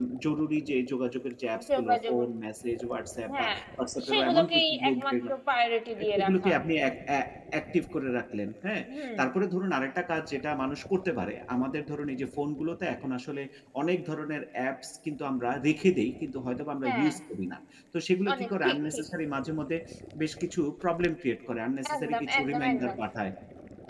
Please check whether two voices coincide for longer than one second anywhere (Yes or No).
Yes